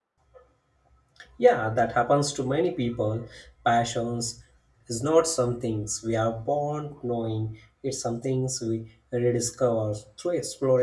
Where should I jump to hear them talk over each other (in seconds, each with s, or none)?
none